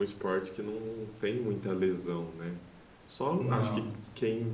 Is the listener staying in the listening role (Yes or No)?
Yes